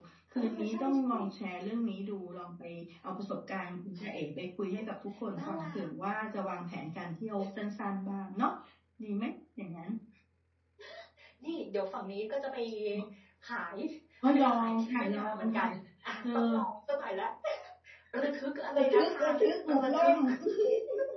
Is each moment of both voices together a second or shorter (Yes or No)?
No